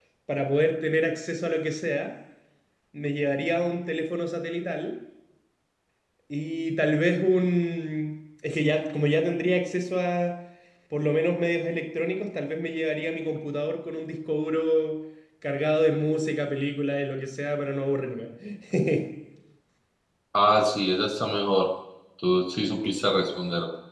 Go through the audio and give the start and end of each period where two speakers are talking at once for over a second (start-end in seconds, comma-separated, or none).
none